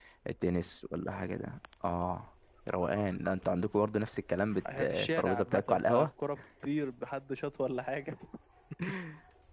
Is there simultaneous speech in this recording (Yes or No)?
Yes